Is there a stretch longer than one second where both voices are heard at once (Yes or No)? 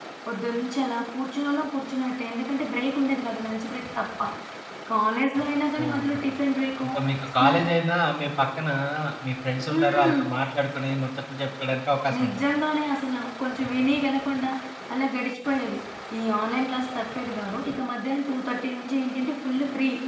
No